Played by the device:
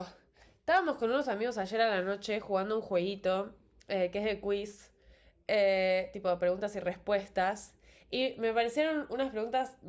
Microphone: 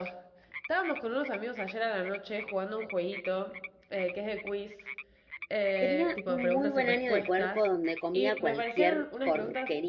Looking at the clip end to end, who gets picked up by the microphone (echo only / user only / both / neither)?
both